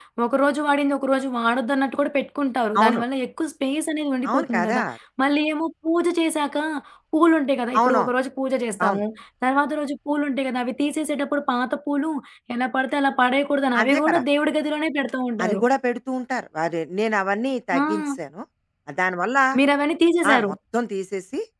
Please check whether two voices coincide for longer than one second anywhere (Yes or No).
No